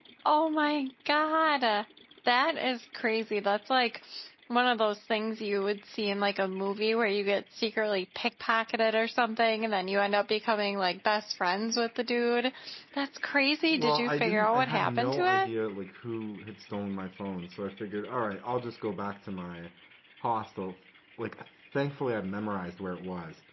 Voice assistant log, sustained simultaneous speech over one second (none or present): present